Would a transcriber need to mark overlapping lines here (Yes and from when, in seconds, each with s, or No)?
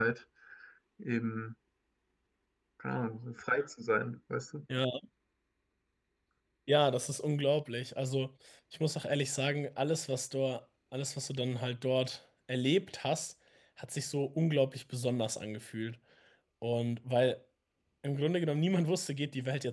No